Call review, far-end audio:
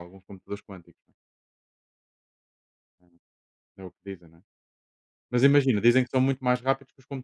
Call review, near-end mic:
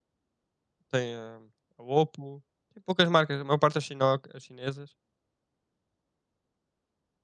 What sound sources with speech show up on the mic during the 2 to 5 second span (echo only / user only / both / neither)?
user only